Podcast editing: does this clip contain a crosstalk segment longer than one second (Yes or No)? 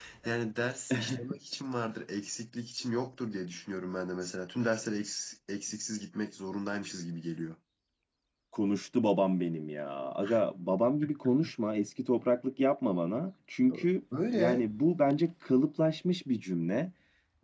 No